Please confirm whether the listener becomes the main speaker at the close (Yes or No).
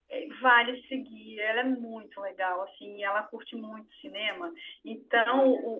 No